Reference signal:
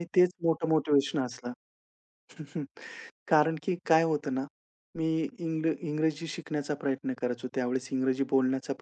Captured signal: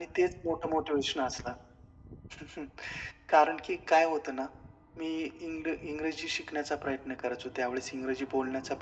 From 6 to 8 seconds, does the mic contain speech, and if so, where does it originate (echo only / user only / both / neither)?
echo only